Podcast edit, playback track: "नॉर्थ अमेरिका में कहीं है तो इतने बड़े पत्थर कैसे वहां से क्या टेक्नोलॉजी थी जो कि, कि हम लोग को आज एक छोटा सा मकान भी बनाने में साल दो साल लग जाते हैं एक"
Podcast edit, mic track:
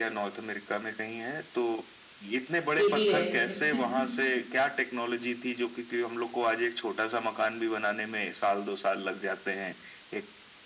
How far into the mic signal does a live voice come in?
2.8 s

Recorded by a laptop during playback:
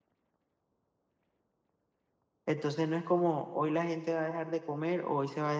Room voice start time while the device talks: 2.4 s

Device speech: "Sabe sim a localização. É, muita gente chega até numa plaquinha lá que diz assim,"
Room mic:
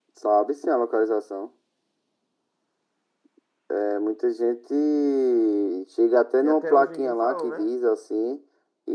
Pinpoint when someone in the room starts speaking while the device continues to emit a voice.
6.4 s

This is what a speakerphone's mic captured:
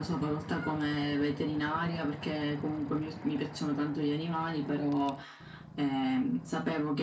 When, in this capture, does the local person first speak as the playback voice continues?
none

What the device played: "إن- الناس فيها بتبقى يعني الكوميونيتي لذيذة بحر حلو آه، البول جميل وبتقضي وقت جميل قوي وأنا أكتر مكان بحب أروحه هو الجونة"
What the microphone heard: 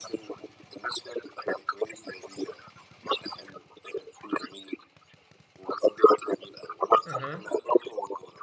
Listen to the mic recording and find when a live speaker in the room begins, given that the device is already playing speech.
7.0 s

